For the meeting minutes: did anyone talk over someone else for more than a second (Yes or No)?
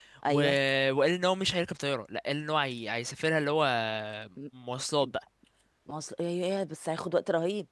No